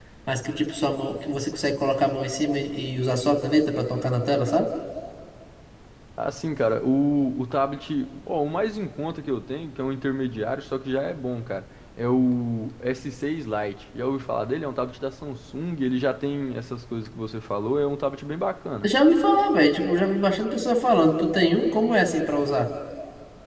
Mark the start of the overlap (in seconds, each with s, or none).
none